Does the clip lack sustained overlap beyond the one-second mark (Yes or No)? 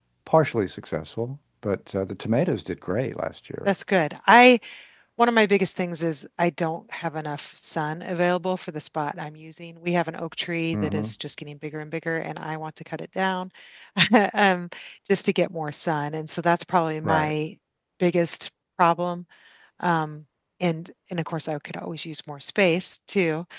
Yes